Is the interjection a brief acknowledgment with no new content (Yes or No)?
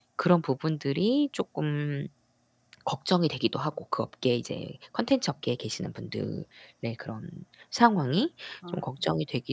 Yes